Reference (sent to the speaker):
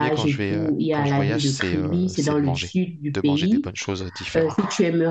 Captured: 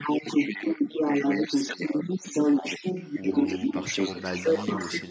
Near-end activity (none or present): present